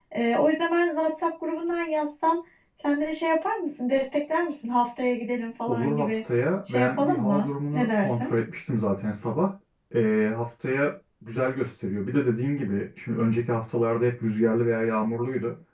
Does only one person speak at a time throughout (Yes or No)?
No